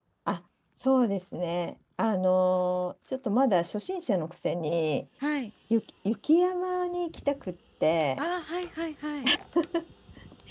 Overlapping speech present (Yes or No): No